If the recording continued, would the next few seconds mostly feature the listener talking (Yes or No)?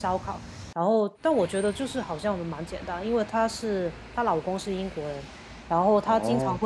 No